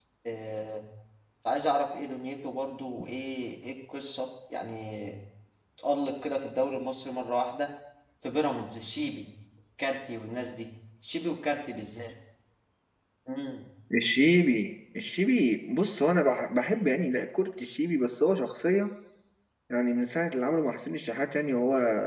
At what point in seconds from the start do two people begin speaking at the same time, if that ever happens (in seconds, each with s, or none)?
none